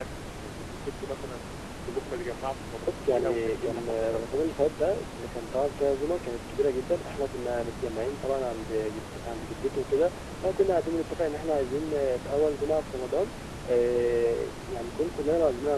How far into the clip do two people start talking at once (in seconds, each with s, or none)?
3.1 s